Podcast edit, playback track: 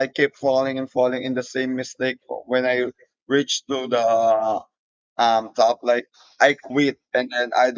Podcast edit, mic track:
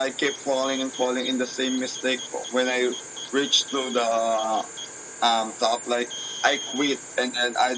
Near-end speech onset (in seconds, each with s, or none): none